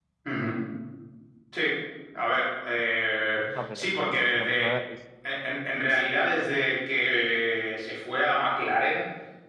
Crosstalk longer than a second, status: present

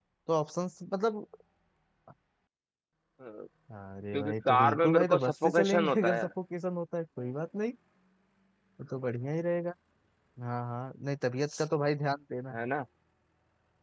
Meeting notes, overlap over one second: present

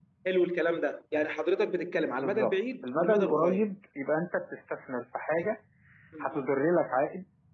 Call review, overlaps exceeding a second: present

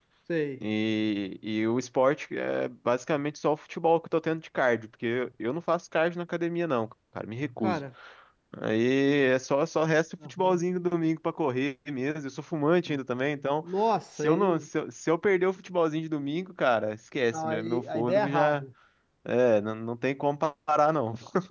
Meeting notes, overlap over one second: present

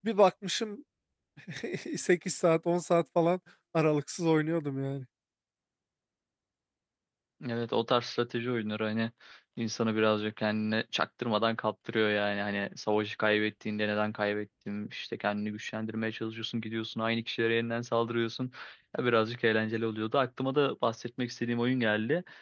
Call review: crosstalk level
none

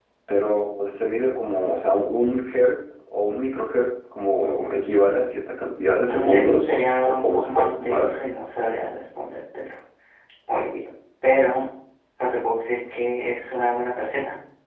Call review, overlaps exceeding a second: present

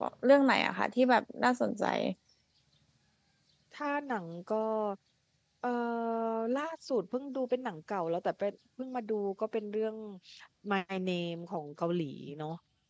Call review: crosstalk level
none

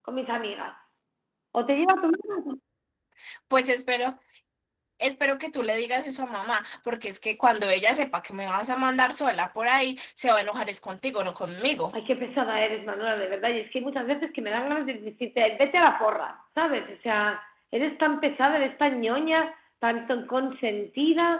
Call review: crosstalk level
none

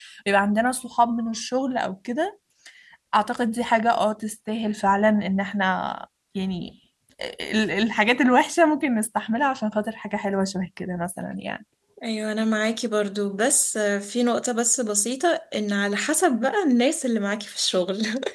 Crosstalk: none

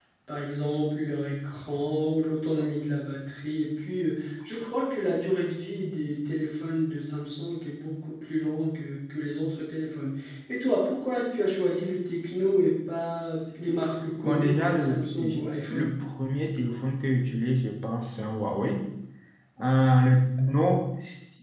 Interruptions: present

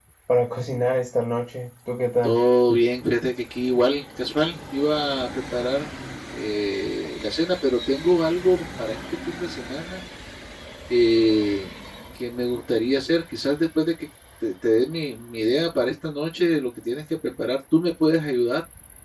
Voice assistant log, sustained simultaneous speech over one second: none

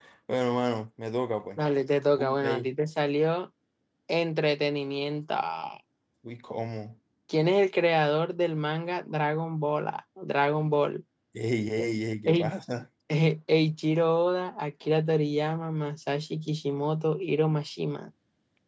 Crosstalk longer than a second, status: none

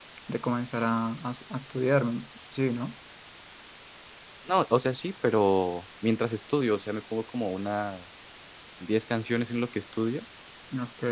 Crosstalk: none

